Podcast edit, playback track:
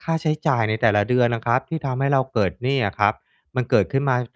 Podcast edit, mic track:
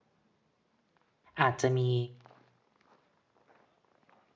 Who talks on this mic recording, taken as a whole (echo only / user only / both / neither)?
user only